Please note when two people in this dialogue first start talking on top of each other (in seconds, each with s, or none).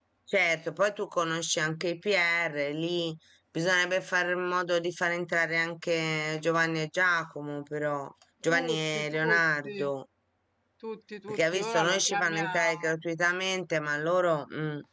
8.5 s